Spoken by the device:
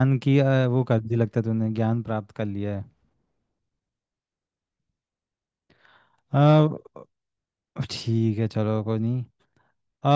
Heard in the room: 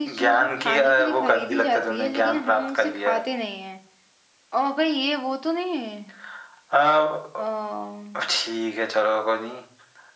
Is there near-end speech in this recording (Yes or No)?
Yes